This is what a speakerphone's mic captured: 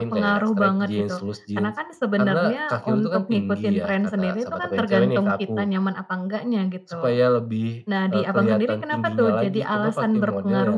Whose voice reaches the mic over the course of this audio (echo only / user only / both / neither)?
echo only